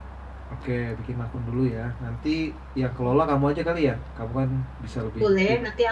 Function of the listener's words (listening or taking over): taking over